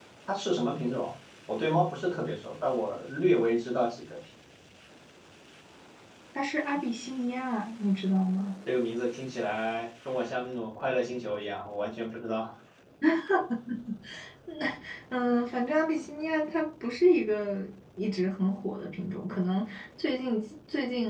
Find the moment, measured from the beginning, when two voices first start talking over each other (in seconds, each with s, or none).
none